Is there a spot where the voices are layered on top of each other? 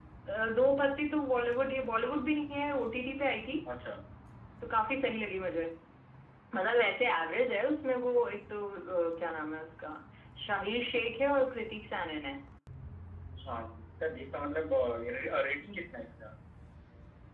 No

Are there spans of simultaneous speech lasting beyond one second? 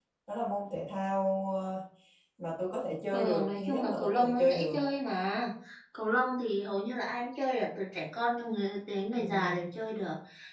Yes, from 3.1 s

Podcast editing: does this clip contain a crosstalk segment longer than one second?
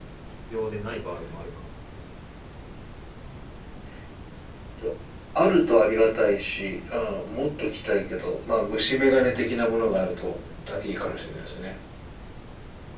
Yes, from 9.1 s

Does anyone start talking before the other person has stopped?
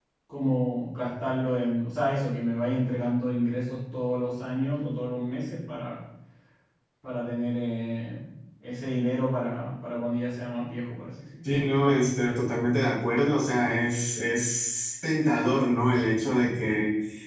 No

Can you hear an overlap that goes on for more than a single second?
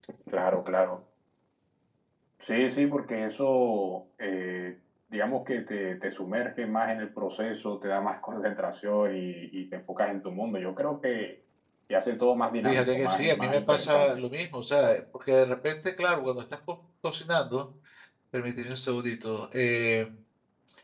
Yes, from 12.6 s

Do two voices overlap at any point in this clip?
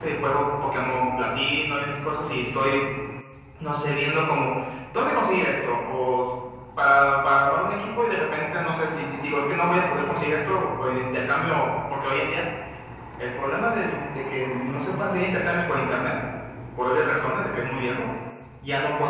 No

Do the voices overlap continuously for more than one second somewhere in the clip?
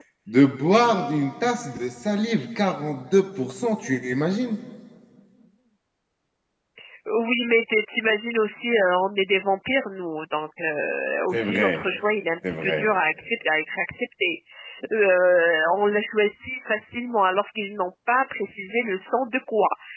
No

